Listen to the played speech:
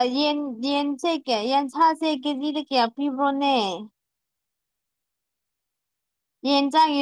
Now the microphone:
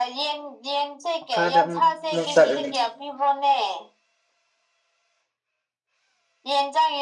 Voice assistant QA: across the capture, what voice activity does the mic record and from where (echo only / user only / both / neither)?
both